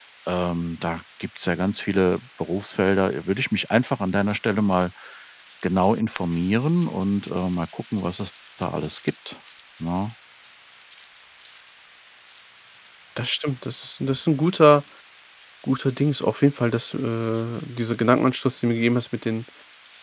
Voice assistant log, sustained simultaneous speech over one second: none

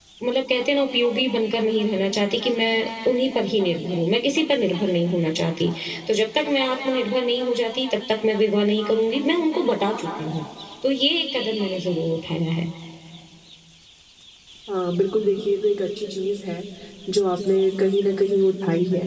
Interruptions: none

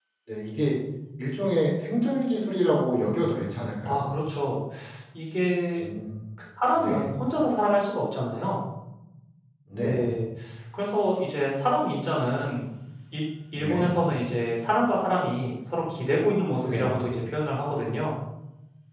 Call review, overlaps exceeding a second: none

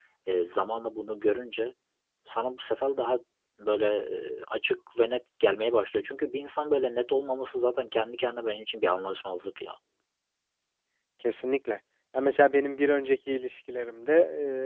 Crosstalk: none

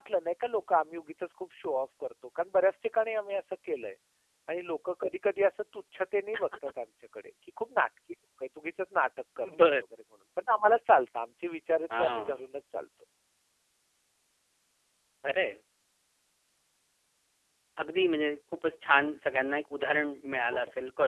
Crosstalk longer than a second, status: none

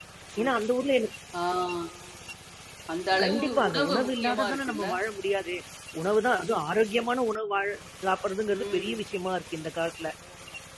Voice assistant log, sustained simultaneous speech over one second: present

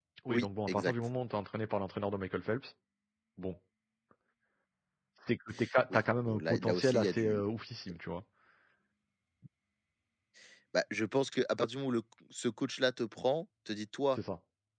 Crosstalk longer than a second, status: present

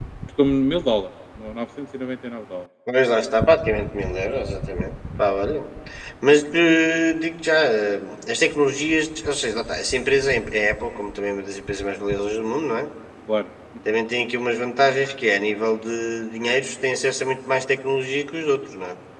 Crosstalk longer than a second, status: none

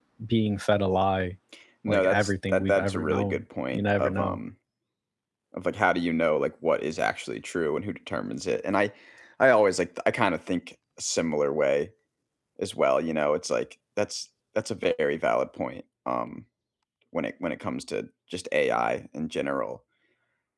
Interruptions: present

